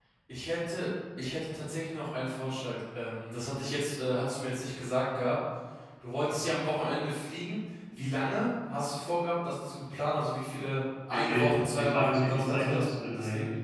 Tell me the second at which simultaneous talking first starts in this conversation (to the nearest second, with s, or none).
11 s